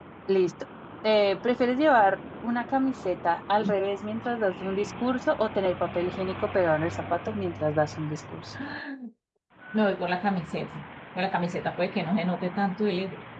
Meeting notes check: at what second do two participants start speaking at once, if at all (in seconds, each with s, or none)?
none